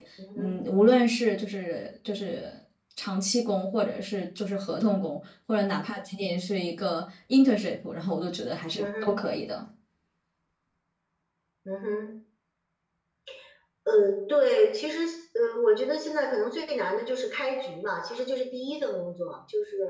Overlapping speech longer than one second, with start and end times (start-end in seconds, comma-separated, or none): none